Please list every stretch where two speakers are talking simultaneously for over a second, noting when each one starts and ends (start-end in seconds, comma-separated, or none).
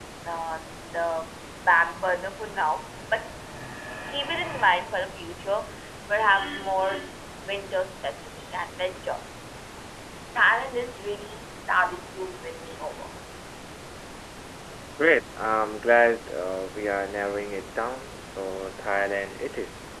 none